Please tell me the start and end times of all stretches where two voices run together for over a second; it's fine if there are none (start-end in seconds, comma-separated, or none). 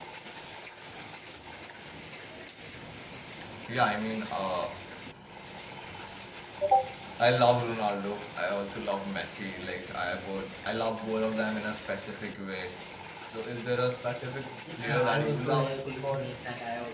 14.7-16.4